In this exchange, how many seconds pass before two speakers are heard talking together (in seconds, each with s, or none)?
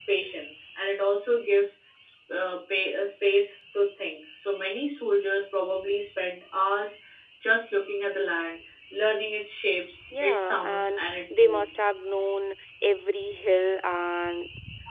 10.1 s